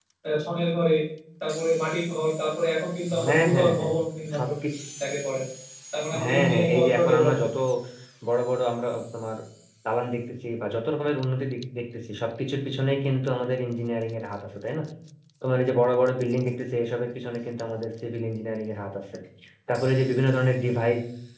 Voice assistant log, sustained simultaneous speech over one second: present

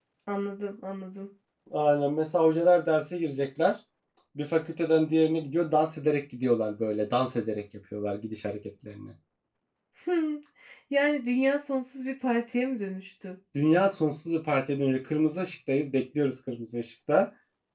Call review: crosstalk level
none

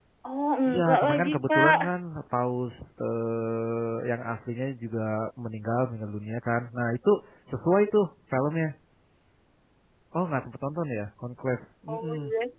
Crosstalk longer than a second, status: present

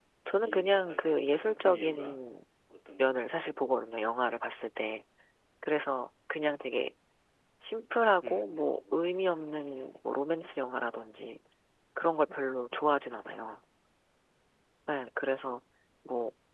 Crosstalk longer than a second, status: present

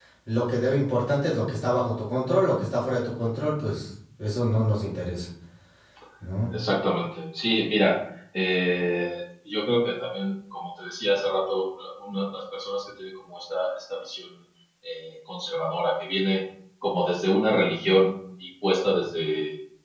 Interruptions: none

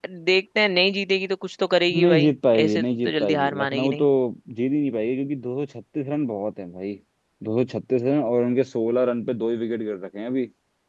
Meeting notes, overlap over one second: present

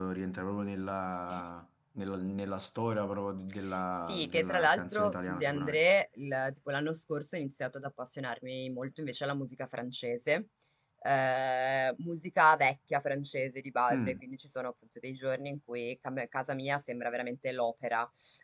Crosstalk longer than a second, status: present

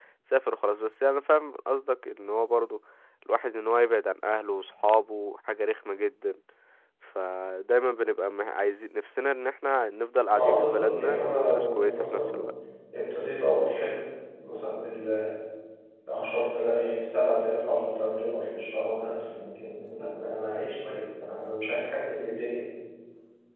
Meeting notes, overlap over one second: present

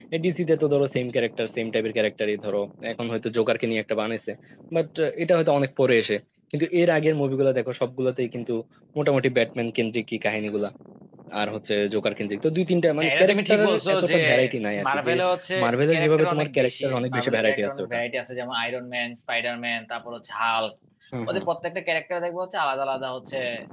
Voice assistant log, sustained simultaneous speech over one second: present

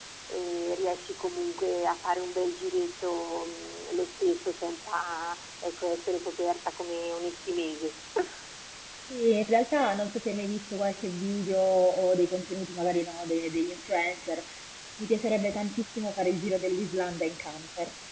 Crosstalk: none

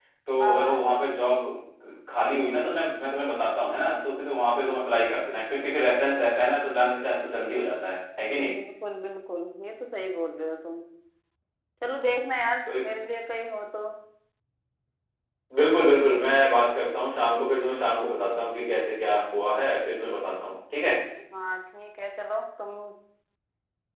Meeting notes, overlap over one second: none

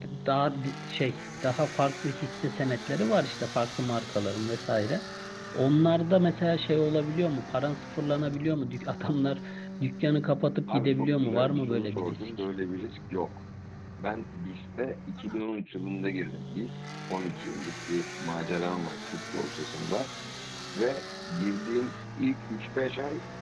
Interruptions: present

